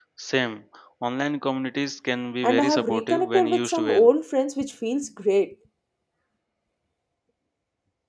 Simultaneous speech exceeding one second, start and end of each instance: 2.4-4.1

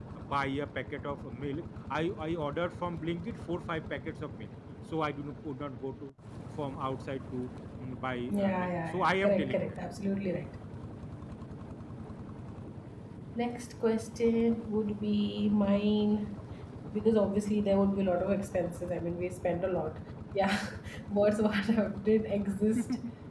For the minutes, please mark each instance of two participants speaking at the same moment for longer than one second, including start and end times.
8.3-9.8

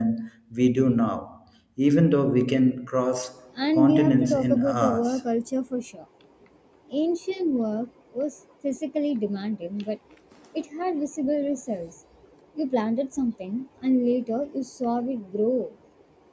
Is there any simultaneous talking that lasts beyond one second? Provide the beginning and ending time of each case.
3.8-5.2

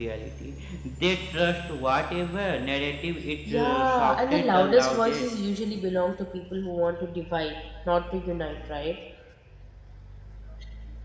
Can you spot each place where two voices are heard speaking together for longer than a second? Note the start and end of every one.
3.5-5.2

